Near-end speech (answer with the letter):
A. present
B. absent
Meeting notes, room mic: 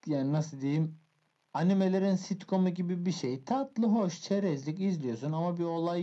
B